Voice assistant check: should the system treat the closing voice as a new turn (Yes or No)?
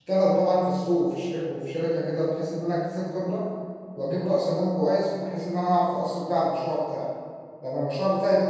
No